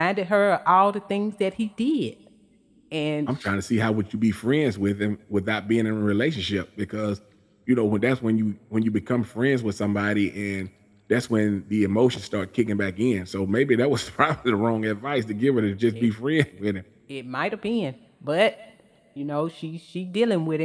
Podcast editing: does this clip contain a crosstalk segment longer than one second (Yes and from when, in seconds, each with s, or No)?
No